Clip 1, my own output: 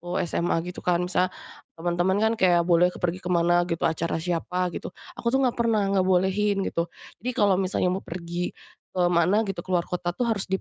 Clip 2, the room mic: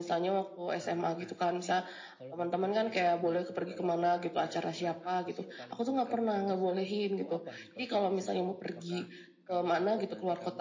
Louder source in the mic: echo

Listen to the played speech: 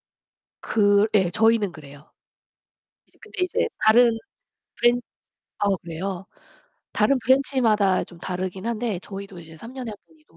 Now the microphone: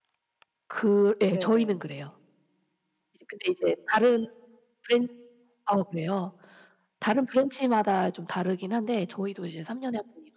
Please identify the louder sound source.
echo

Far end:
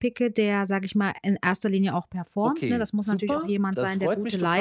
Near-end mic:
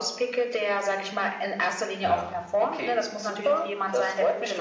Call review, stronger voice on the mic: echo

